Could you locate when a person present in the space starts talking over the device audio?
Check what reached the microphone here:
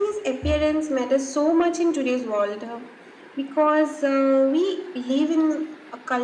none

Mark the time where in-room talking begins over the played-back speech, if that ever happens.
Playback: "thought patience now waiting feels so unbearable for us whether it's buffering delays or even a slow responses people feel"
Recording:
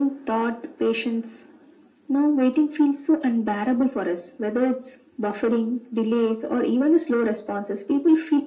none

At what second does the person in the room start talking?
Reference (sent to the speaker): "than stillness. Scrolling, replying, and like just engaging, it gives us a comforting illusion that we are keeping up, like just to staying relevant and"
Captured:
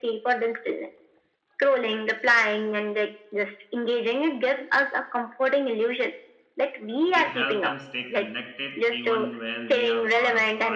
7 s

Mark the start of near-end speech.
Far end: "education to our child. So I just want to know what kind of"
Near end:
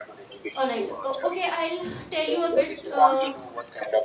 1 s

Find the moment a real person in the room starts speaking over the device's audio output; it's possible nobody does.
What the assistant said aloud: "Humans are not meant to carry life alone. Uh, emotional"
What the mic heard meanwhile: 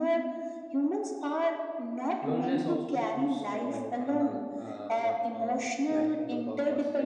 2 s

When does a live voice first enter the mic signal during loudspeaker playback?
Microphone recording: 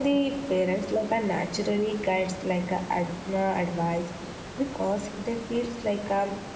none

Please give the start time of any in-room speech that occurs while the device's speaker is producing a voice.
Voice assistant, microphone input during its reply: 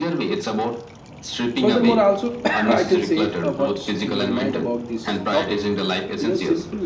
2 s

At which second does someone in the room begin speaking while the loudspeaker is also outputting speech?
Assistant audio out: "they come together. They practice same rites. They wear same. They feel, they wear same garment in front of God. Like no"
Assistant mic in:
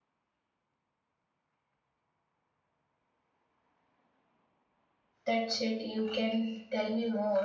5 s

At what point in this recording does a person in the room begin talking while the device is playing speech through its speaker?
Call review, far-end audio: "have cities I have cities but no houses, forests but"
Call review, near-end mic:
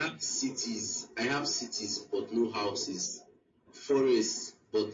none

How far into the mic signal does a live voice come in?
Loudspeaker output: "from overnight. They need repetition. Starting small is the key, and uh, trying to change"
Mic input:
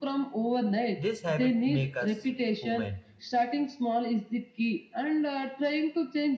1 s

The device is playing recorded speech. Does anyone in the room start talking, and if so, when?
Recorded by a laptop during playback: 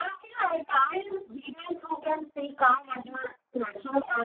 none

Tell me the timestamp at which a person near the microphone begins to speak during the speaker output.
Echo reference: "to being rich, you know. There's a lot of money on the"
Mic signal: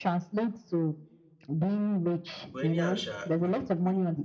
3 s

